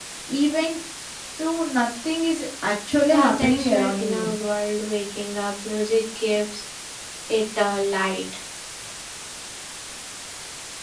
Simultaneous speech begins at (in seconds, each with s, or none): 3.1 s